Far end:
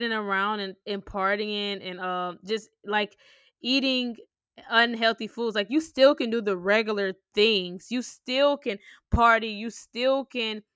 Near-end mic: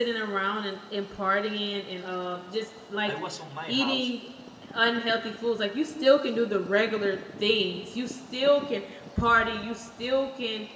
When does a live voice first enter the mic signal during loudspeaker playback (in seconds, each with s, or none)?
3.0 s